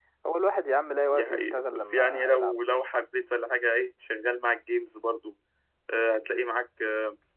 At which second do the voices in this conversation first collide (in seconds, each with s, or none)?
1.1 s